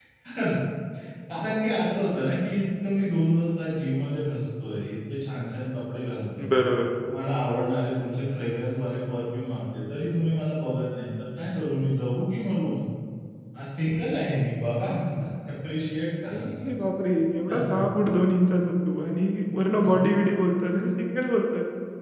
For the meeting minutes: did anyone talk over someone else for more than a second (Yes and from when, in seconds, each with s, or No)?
No